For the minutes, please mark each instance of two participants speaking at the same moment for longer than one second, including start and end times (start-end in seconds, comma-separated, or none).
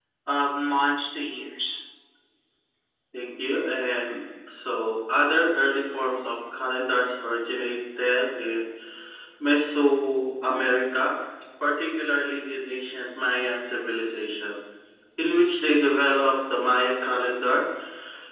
none